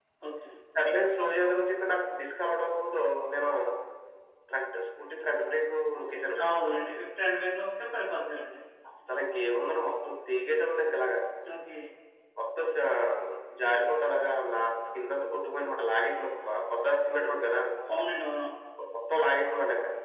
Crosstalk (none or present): none